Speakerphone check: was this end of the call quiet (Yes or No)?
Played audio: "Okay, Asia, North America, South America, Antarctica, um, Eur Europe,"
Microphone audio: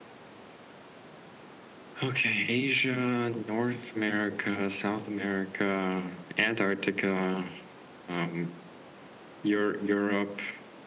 Yes